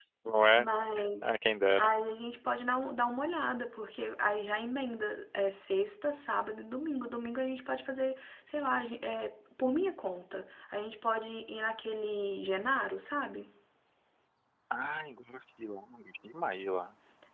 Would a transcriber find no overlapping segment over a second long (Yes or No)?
Yes